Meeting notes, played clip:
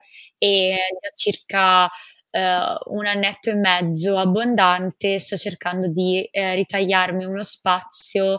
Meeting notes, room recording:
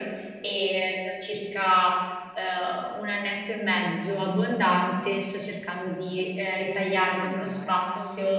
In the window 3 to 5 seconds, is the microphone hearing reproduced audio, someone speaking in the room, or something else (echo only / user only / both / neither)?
echo only